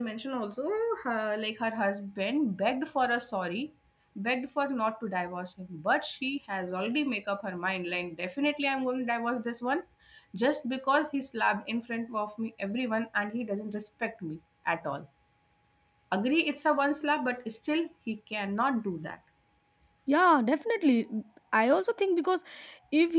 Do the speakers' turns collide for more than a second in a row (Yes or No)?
No